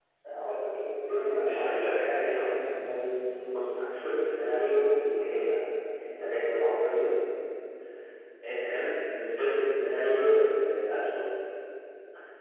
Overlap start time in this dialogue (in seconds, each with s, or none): 1.2 s